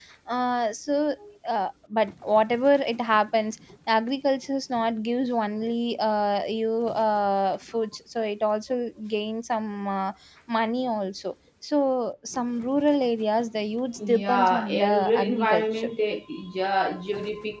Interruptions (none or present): present